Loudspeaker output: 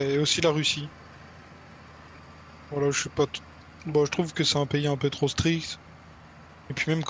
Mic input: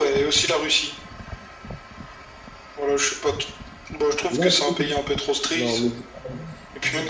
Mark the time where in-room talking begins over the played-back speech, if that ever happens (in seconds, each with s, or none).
4.3 s